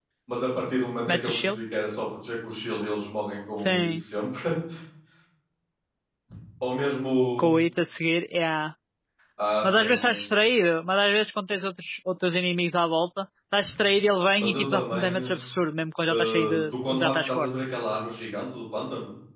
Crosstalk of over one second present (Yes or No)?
Yes